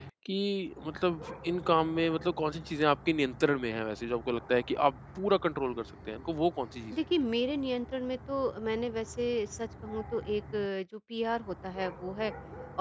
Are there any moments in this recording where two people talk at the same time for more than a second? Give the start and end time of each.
none

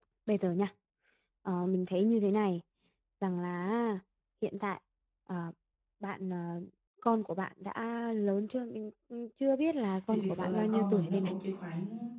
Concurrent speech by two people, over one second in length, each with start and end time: 10.1-11.3

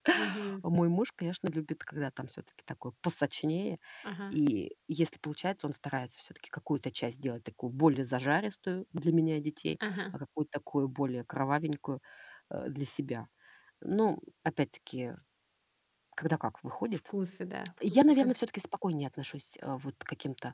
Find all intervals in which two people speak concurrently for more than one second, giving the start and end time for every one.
none

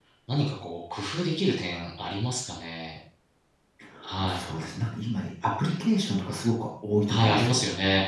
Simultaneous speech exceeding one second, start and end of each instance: none

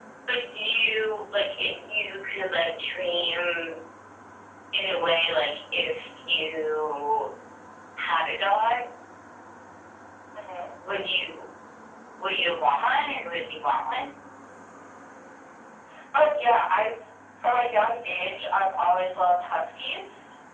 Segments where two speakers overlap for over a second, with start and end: none

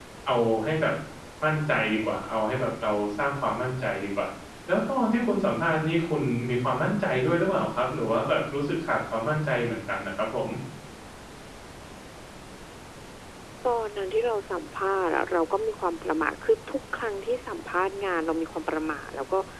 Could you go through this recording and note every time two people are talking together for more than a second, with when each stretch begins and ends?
none

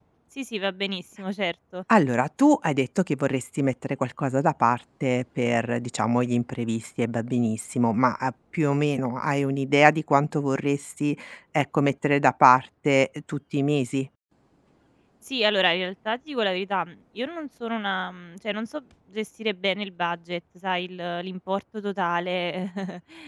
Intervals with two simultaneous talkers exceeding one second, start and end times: none

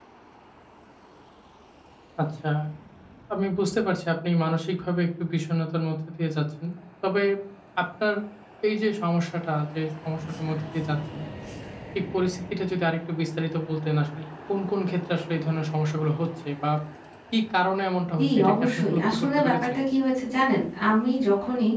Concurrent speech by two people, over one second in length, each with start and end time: 18.2-19.8

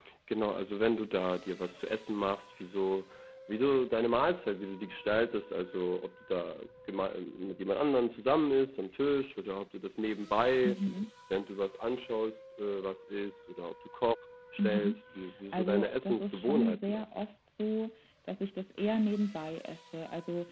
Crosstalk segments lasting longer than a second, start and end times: 15.5-17.1

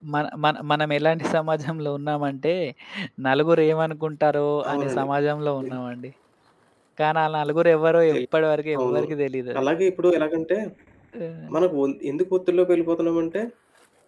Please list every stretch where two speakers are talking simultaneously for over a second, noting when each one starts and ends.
none

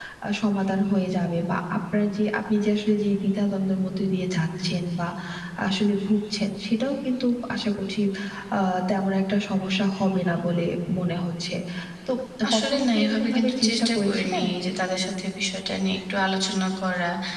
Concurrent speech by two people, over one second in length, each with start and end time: 12.5-14.4

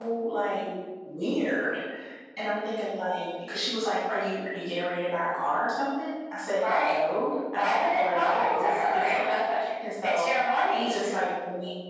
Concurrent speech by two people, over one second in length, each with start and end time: 7.6-9.0

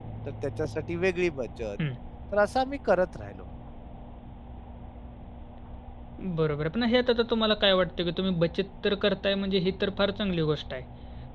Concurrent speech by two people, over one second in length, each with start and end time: none

